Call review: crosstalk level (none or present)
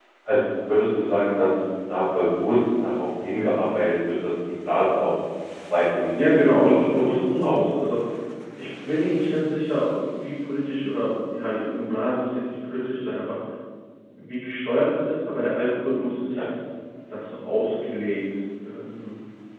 present